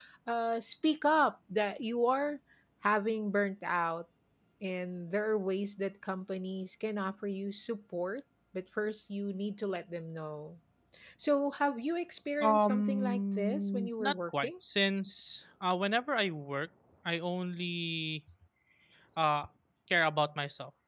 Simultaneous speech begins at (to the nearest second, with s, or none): 12 s